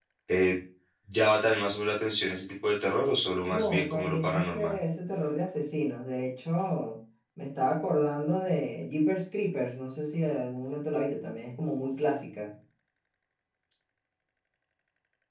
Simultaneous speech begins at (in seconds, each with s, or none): 3.5 s